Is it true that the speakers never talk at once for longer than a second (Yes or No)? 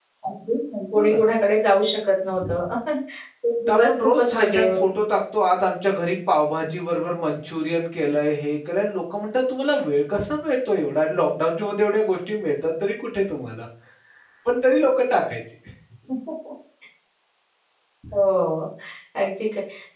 No